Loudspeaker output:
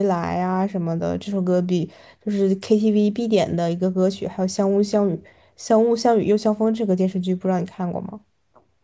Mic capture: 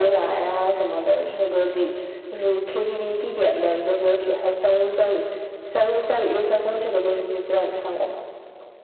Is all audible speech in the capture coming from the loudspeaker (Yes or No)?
Yes